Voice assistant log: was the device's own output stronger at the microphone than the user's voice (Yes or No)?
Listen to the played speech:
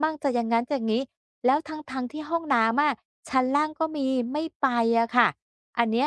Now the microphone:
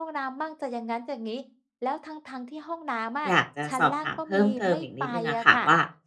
No